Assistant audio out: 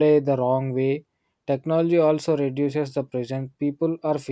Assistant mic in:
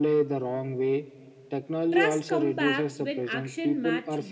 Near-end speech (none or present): present